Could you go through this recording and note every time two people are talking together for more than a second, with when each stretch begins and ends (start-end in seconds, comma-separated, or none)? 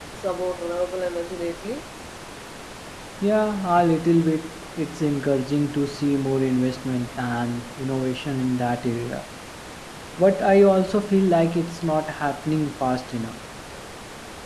none